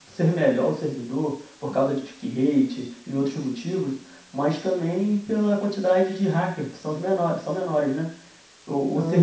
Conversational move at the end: listening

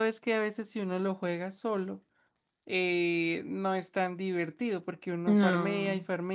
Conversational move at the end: listening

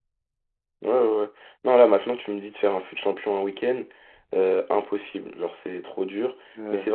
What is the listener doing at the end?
listening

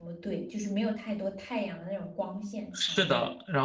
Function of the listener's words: taking over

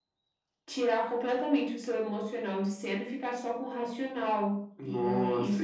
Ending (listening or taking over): taking over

